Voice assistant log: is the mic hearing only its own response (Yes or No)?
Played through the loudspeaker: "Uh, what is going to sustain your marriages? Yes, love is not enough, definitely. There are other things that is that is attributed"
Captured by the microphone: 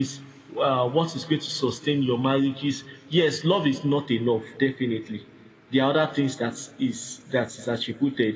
Yes